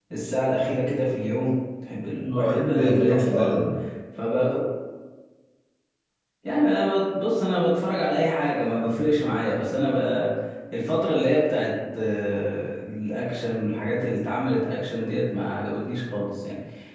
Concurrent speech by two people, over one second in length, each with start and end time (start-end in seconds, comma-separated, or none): 2.2-3.6